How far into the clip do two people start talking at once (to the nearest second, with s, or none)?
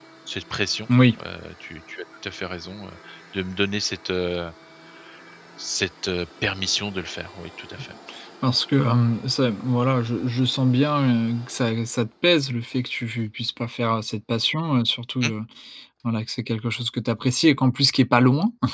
none